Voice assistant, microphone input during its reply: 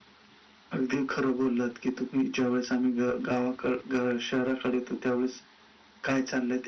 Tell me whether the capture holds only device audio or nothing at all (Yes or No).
Yes